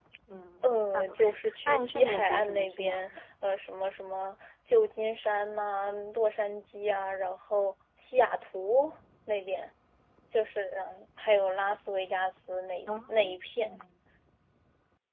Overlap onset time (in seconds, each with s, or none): 0.6 s